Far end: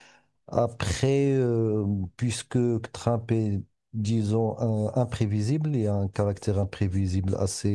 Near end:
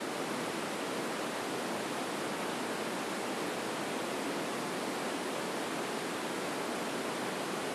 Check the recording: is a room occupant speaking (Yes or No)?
No